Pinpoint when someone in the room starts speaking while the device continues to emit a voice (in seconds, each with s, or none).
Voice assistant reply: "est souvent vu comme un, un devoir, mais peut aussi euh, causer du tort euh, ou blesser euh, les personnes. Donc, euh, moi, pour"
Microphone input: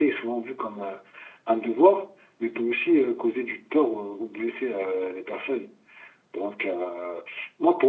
none